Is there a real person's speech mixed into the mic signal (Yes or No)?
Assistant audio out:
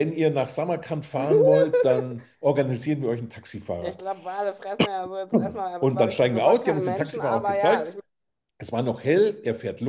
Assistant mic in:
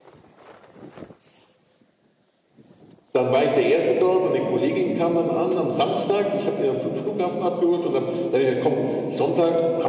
Yes